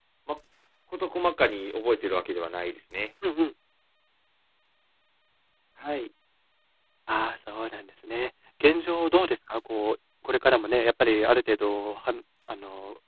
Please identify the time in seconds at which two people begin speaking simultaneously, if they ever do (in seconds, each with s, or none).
none